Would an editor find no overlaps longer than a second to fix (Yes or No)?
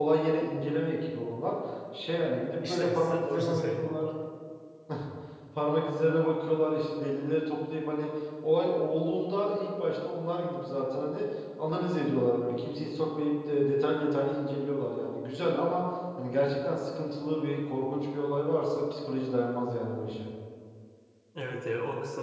No